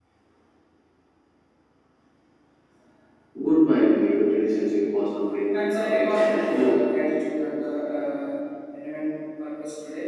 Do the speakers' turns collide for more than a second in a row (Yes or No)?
Yes